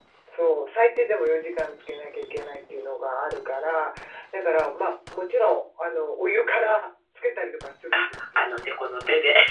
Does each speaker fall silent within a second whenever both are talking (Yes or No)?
Yes